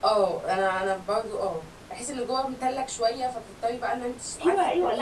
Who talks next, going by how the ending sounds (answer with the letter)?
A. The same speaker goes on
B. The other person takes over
B